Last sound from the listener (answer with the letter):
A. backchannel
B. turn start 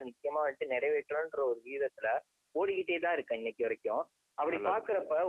A